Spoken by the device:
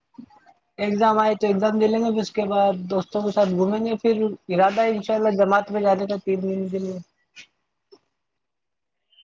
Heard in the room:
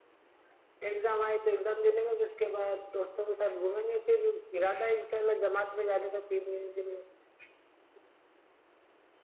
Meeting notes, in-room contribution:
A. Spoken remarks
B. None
B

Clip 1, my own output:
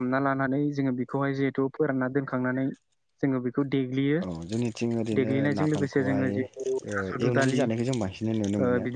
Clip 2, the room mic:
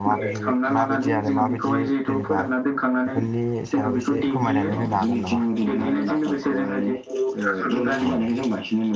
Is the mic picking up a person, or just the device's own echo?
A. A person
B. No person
A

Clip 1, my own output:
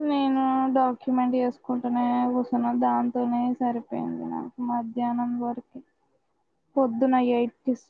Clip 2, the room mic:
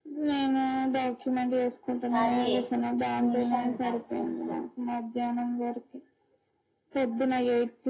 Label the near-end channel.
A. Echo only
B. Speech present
B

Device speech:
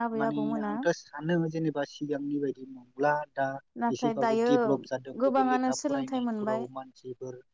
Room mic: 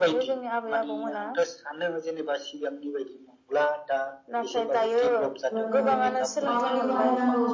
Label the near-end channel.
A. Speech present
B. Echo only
A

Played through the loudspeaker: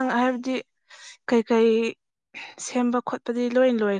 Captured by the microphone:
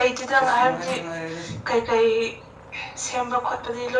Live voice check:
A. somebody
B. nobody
A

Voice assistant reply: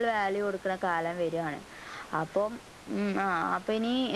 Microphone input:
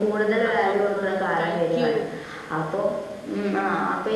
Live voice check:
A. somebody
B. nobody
A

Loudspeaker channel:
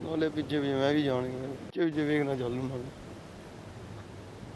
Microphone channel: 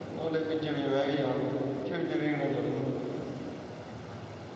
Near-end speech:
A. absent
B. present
A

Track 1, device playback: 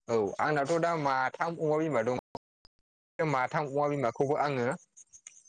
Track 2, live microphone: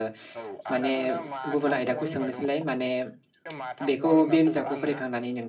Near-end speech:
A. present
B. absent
A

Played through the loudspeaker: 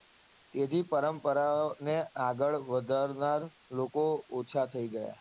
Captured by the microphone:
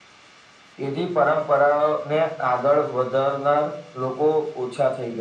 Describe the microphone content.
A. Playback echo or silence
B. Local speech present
A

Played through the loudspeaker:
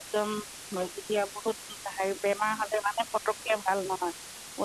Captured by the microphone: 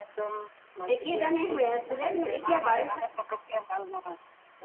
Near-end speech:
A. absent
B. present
B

